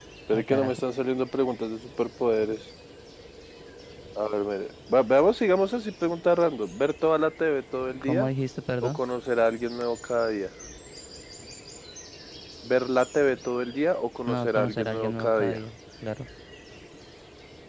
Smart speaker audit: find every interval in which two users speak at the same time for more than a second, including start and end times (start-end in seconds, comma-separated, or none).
14.3-15.6